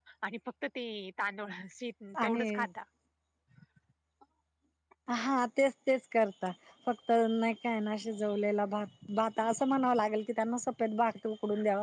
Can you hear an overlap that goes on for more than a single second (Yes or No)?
No